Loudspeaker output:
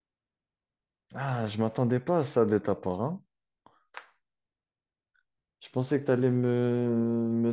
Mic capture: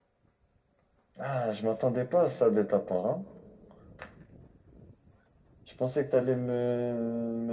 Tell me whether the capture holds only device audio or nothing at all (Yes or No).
Yes